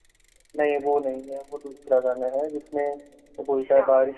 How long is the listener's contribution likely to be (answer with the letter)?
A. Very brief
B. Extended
A